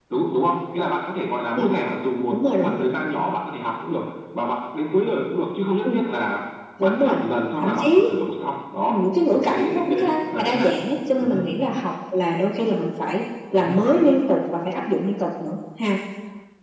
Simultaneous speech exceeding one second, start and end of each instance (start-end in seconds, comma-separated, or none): 8.9-10.7